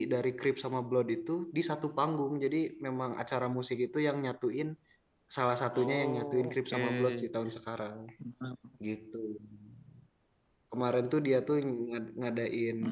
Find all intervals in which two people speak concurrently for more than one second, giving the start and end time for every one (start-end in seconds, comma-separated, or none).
5.7-7.3